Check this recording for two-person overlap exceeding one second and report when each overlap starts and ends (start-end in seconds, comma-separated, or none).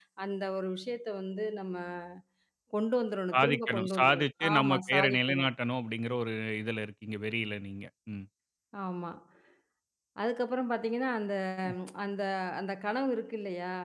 3.3-5.5